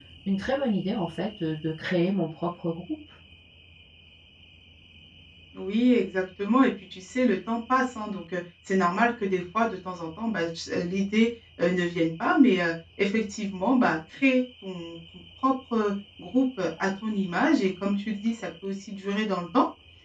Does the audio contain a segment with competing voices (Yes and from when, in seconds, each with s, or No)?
No